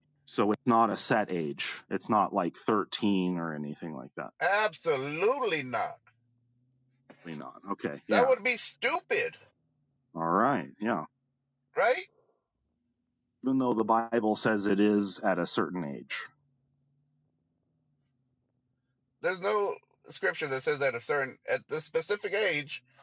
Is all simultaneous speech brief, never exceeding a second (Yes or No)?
Yes